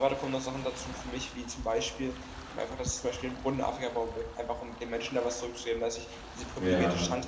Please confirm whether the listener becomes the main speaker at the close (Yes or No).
No